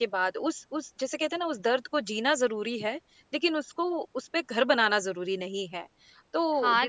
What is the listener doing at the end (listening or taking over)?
taking over